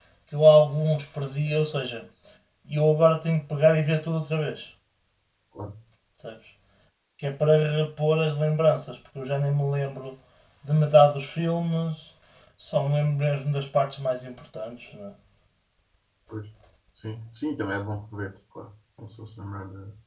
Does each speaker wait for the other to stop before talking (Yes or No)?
Yes